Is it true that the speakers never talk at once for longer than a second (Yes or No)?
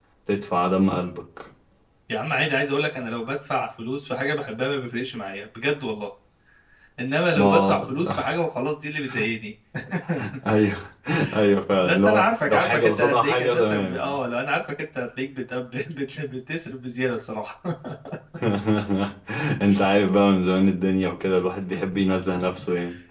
No